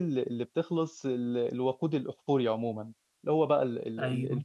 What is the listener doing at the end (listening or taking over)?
listening